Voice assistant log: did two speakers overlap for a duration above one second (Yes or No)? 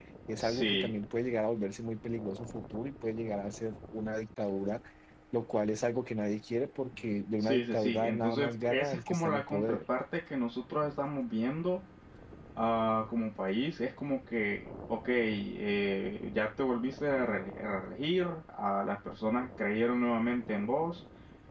Yes